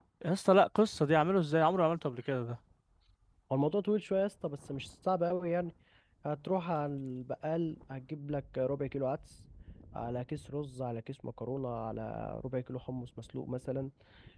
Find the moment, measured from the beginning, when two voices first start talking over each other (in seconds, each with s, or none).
none